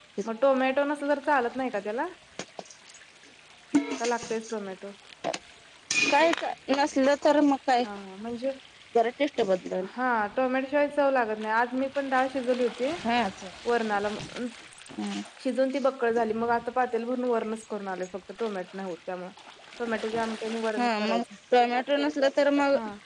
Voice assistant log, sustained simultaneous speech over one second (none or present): none